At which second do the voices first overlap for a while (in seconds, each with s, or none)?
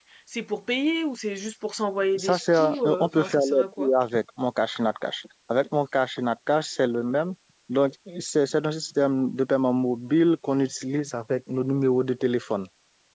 2.1 s